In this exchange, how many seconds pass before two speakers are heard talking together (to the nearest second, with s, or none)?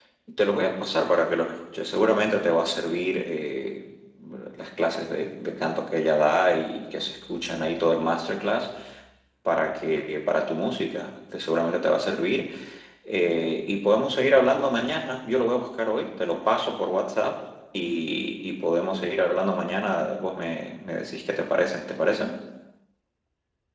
none